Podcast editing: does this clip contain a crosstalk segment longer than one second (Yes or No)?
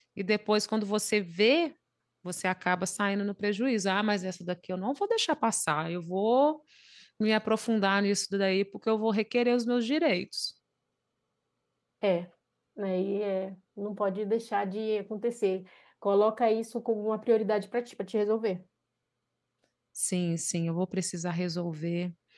No